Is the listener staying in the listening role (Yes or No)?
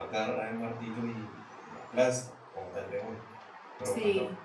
Yes